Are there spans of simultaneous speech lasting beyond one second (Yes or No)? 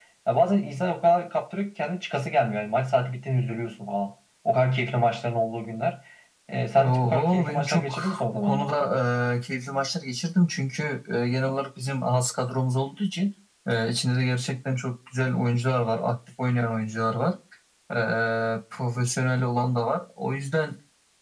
Yes